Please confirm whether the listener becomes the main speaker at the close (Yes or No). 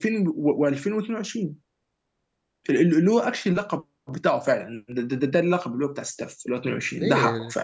Yes